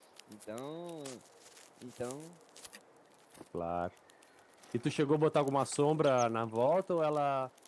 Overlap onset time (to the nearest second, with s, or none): none